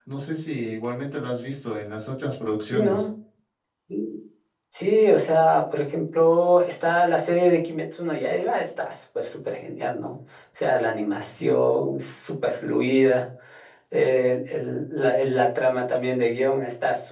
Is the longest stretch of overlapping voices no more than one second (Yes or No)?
Yes